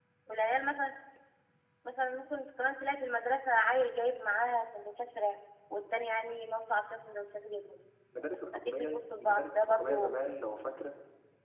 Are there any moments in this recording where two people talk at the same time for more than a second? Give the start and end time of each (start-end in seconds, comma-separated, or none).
8.7-10.1